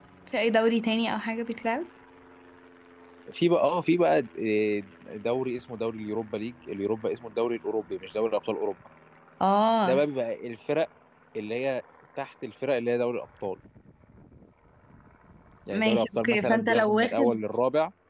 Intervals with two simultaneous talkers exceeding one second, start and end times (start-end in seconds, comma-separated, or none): 15.7-17.3